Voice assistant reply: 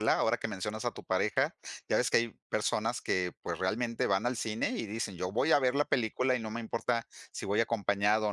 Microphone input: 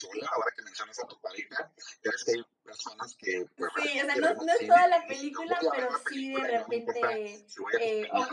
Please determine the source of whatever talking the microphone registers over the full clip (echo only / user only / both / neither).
both